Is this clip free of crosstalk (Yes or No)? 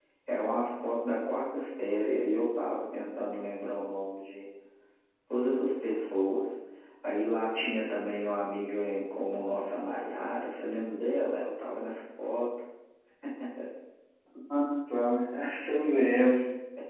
Yes